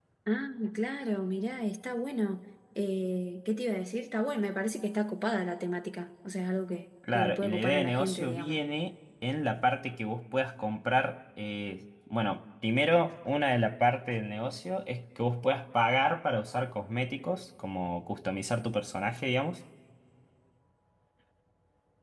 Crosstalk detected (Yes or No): Yes